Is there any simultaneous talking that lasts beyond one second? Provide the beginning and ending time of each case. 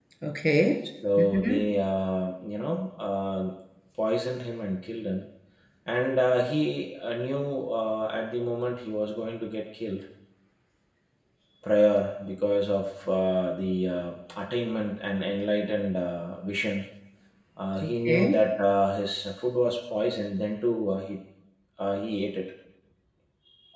none

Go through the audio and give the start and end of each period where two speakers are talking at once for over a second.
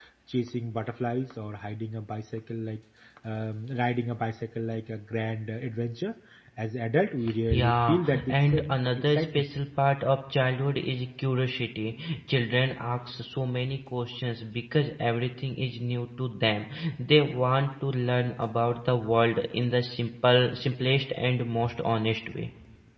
7.5-9.4

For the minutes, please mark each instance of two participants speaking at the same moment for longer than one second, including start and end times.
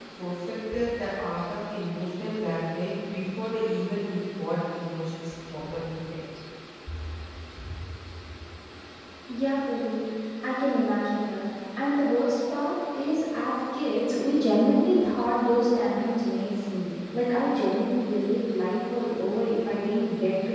none

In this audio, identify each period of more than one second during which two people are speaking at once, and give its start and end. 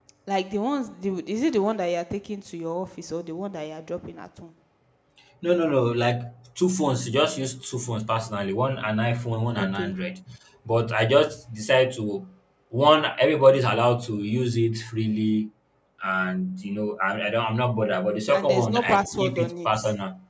18.3-19.7

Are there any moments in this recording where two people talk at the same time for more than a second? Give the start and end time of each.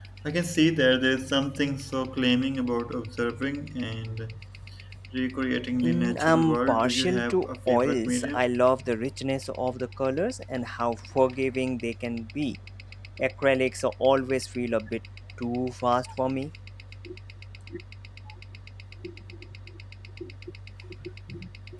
5.8-8.4

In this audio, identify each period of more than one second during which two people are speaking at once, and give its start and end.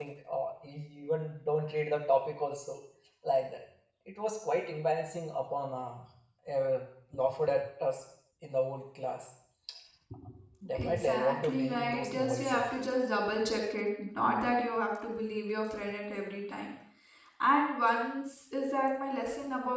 10.8-12.6

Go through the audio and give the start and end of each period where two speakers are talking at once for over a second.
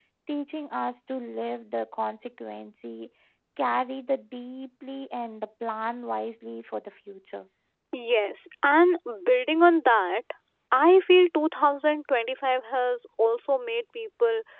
none

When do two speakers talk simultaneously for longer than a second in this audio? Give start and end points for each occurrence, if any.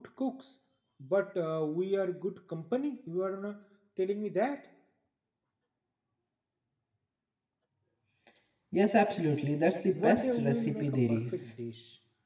9.9-11.5

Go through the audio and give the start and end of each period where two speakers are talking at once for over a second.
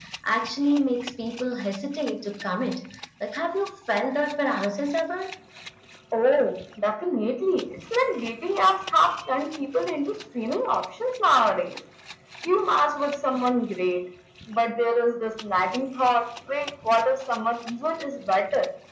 none

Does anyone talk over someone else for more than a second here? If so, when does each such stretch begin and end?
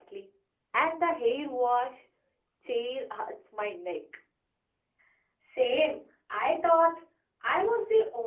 none

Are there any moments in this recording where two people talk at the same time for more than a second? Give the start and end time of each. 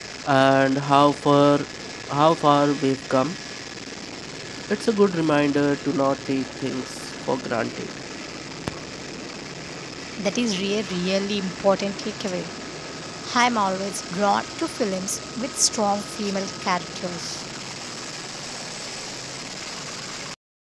none

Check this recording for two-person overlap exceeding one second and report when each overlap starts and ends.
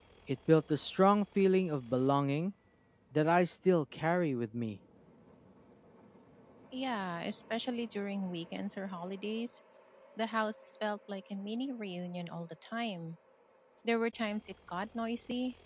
none

